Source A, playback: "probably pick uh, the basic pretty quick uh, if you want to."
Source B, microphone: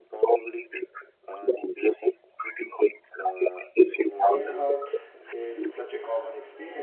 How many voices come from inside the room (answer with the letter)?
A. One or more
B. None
A